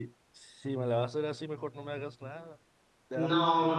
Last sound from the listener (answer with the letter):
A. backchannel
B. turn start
B